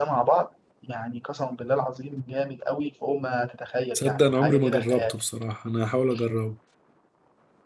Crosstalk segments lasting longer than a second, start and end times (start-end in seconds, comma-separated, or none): 4.0-5.2